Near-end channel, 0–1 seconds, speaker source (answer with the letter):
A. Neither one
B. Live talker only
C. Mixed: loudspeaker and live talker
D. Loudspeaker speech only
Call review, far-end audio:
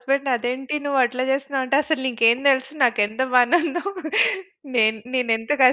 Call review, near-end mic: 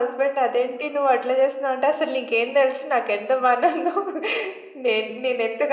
D